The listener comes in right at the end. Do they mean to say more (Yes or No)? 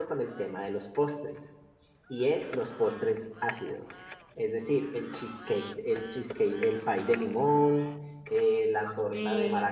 No